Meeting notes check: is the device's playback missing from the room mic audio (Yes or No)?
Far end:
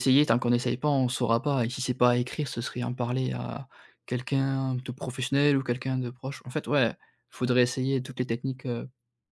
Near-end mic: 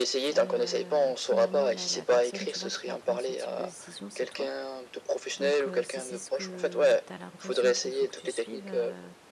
No